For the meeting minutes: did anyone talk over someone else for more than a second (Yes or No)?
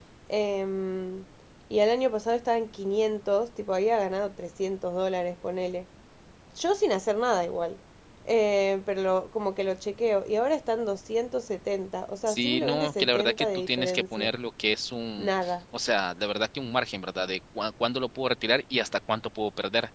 Yes